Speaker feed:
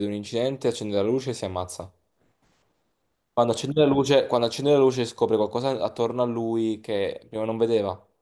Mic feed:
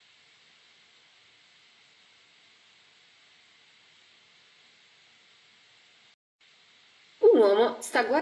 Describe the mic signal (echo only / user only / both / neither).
user only